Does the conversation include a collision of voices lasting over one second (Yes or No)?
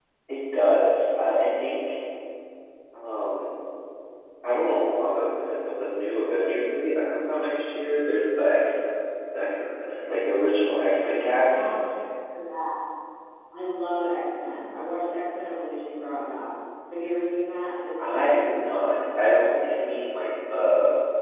No